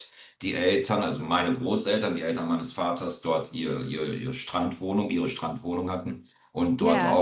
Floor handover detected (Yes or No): No